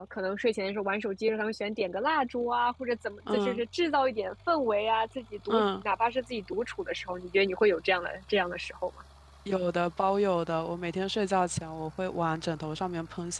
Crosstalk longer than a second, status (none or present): none